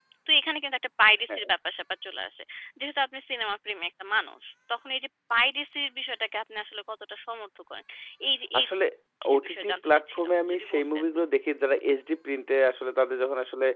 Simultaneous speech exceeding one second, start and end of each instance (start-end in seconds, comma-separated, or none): 9.3-11.0